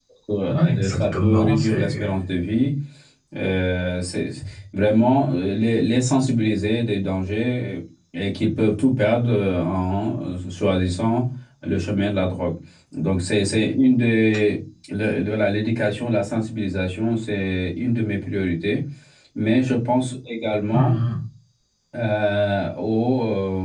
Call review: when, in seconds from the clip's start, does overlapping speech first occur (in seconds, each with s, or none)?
0.5 s